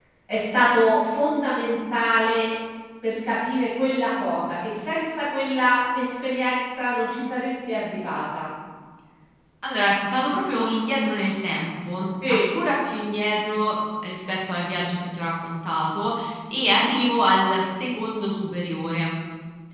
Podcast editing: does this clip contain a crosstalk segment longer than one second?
No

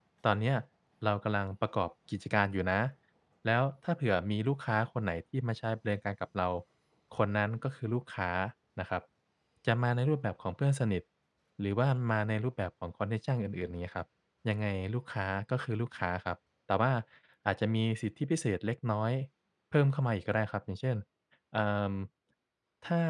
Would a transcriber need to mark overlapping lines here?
No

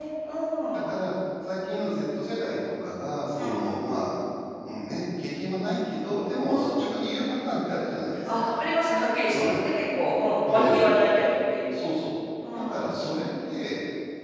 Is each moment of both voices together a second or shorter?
Yes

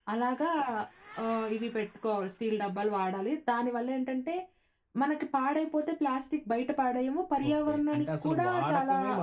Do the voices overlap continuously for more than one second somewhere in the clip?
Yes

